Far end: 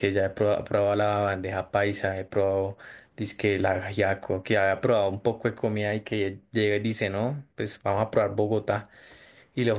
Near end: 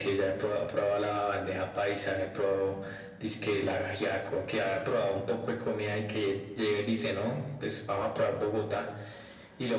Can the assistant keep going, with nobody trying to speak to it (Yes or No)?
Yes